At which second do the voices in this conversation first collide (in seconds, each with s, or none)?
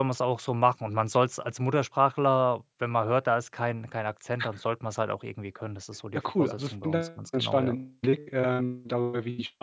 6.2 s